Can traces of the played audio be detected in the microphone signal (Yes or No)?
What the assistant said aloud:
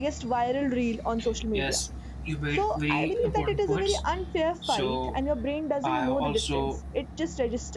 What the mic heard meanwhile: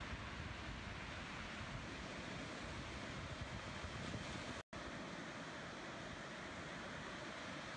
No